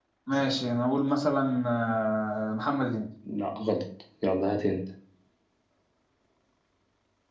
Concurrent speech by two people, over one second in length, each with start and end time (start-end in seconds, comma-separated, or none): none